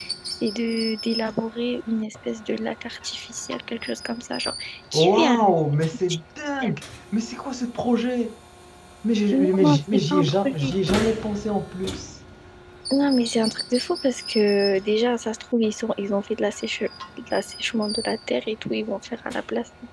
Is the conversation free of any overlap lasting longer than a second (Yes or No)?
No